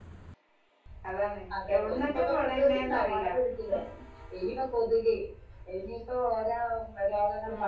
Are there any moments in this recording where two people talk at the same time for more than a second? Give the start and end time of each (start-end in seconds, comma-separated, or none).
1.6-3.3